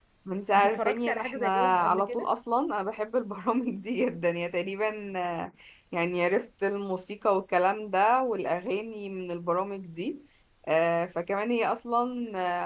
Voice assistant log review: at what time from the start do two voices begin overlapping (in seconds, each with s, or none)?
0.5 s